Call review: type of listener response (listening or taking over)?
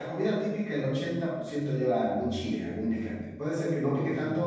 listening